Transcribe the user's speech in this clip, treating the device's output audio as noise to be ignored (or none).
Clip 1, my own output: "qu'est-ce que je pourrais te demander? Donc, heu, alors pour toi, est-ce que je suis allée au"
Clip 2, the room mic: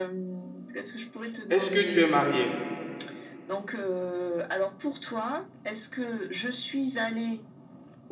est-ce que tu es marié?